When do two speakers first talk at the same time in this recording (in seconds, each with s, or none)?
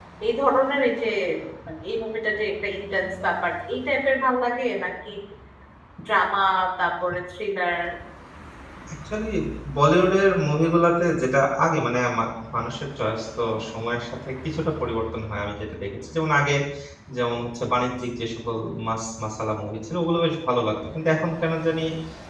none